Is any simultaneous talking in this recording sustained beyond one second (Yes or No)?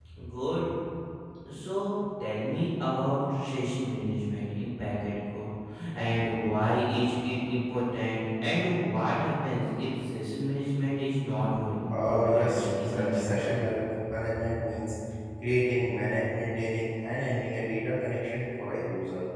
Yes